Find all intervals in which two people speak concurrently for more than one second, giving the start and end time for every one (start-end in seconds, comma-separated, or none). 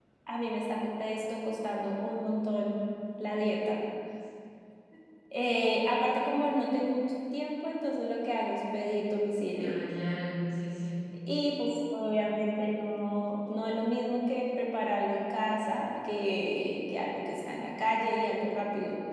none